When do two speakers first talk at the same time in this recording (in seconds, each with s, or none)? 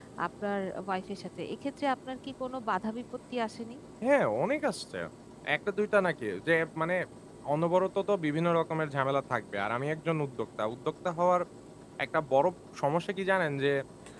none